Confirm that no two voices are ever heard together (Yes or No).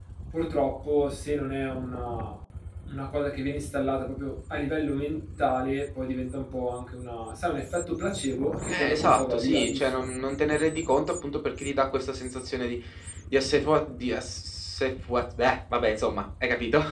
No